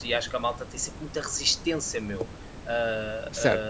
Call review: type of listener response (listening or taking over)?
taking over